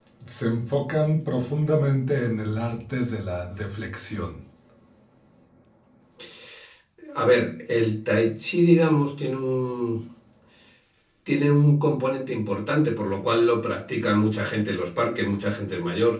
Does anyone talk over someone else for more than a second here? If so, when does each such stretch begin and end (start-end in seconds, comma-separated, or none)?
none